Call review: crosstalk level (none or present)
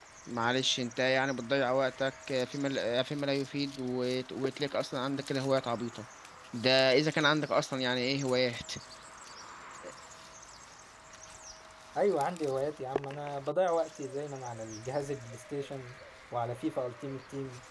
none